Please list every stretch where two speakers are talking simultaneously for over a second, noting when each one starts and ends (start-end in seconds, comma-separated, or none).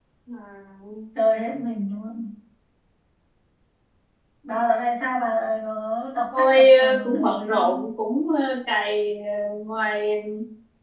6.4-7.8